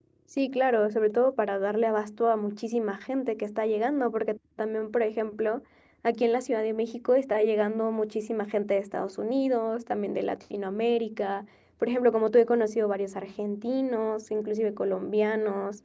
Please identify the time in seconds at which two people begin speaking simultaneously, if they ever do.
none

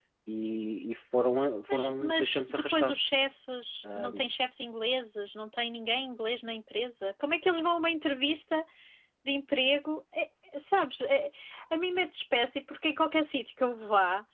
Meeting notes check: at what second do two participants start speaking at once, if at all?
2 s

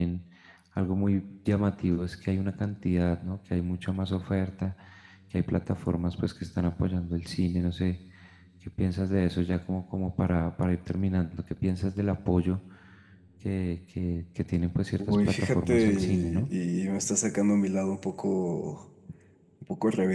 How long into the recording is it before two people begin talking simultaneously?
15 s

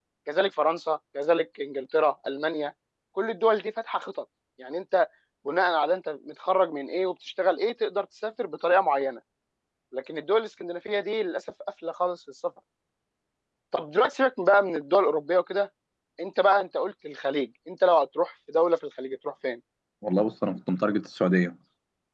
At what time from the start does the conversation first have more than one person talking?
none

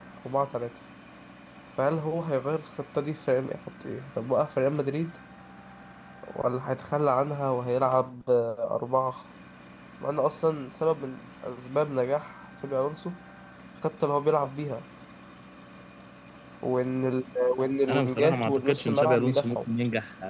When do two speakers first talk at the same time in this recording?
18 s

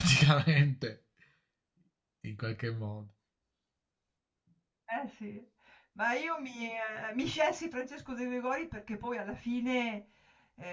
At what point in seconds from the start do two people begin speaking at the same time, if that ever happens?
none

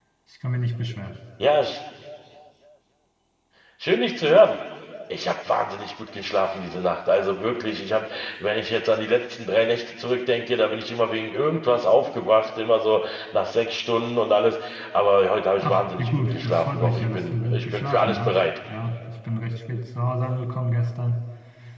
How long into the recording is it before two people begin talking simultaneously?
16 s

